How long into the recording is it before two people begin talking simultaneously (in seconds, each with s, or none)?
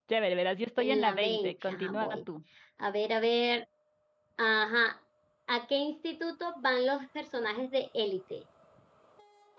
0.8 s